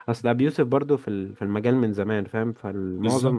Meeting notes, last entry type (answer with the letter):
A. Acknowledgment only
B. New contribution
A